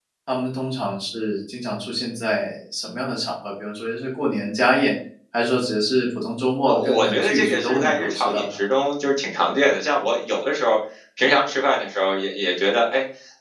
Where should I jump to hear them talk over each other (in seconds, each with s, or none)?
6.6 s